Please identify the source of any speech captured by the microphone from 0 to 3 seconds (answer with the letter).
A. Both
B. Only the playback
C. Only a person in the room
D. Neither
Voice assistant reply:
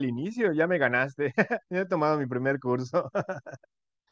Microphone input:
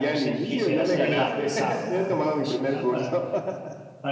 A